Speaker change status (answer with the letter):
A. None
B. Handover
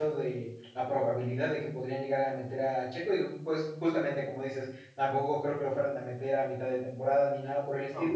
A